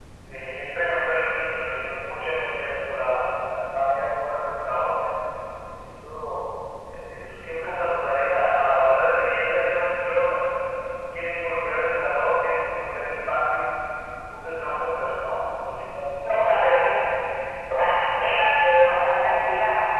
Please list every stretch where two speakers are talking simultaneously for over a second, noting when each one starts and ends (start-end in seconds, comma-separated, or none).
none